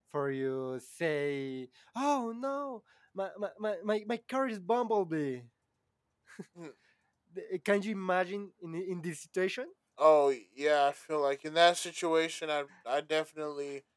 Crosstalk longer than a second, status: none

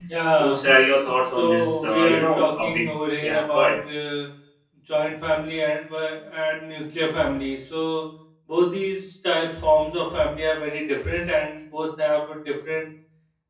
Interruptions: present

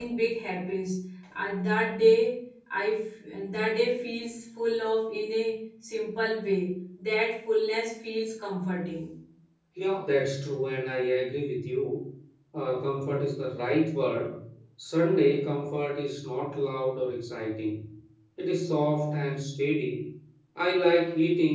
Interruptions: none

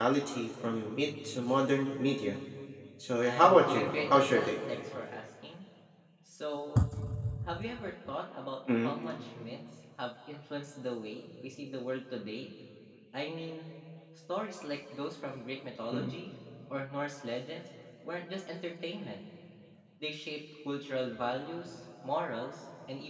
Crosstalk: present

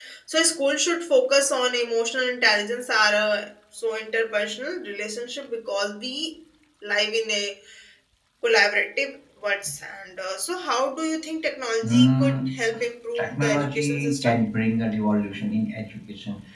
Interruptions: present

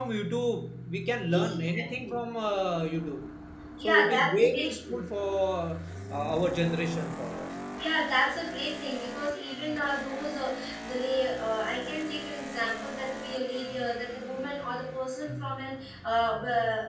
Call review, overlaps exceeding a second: present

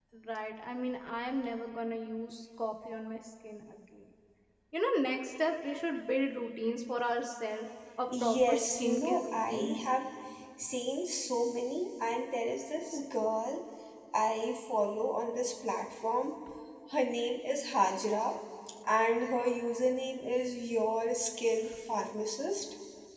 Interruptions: present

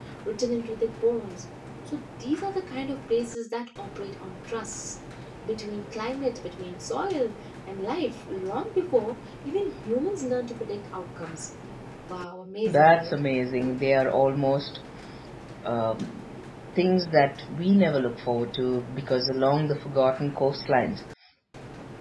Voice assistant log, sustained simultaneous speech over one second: none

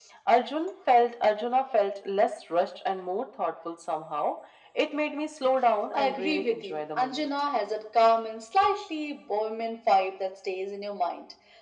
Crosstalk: present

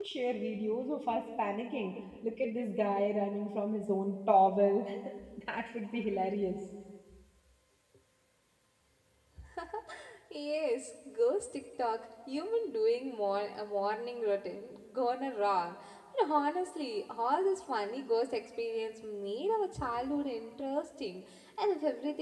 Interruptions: none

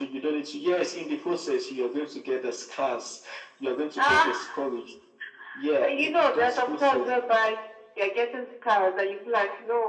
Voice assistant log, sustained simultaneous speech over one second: present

